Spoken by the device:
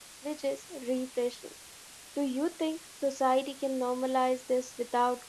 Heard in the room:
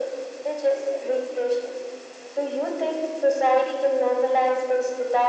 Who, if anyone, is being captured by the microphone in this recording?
echo only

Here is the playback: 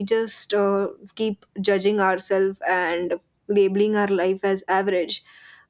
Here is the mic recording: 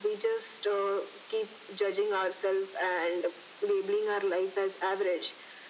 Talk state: echo only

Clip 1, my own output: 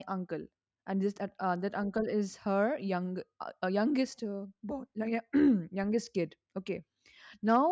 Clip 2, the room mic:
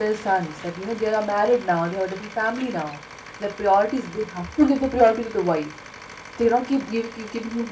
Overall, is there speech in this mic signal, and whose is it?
user only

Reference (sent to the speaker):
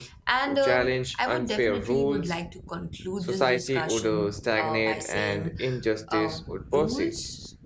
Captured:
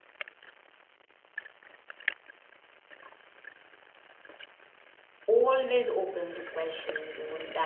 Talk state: user only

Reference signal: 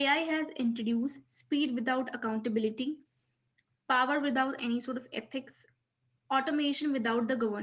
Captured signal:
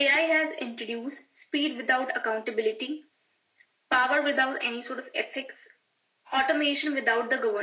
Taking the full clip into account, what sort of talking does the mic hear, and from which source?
echo only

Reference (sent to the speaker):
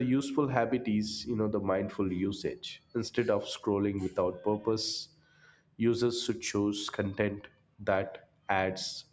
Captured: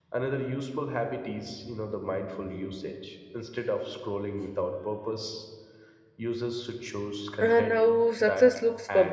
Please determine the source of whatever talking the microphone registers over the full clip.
both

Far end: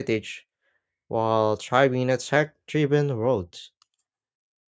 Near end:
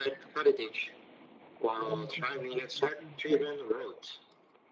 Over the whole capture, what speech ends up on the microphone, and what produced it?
both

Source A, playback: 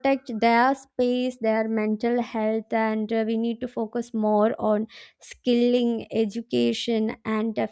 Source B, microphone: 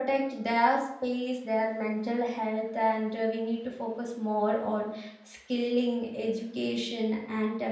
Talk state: echo only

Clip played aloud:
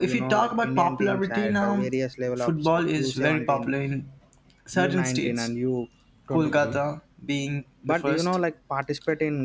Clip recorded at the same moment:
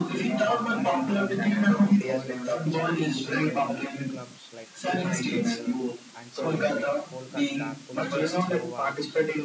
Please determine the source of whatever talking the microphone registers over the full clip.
both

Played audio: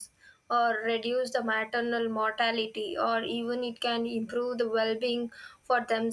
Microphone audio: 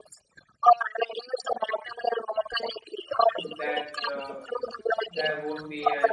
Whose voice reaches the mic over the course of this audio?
both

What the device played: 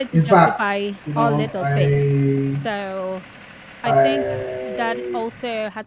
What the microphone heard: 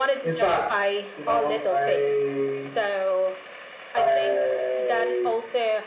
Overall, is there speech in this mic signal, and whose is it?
echo only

